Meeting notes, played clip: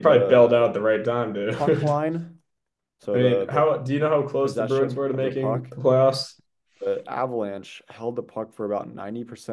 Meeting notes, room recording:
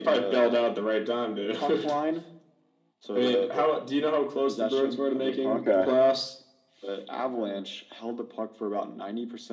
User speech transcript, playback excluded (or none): Okay.